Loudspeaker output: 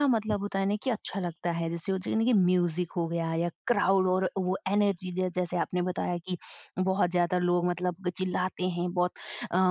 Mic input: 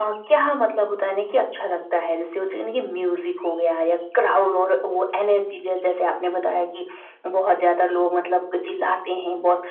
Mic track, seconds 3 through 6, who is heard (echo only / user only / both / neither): echo only